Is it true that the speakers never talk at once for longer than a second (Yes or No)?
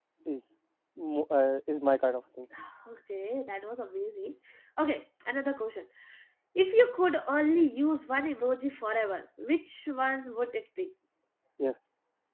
Yes